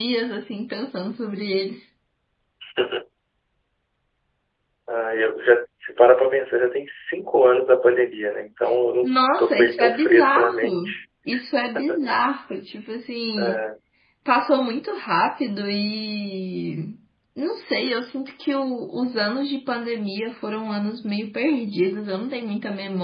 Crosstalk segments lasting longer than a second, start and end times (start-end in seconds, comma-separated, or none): 9.0-11.0